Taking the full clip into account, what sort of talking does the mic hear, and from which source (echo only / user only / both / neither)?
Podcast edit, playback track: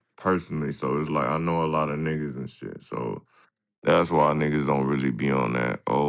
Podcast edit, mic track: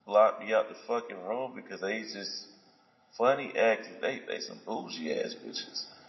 user only